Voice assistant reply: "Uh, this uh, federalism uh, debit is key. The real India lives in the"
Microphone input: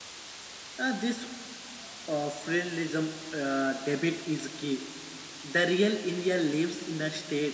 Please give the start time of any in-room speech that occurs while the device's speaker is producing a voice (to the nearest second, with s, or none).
none